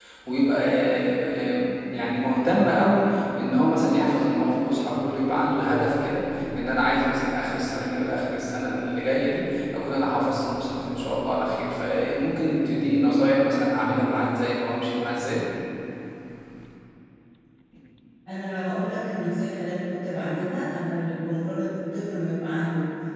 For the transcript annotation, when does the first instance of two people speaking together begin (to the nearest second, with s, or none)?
none